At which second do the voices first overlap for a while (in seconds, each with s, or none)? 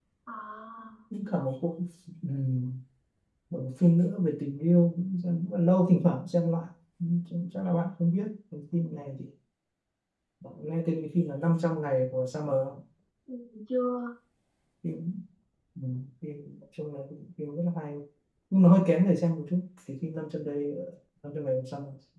none